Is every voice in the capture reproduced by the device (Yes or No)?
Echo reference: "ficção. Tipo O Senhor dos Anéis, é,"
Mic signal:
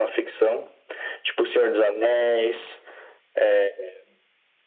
Yes